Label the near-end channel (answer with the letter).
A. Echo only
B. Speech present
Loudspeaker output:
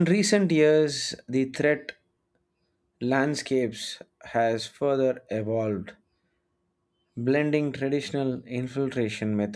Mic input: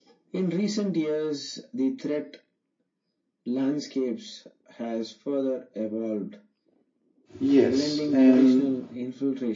B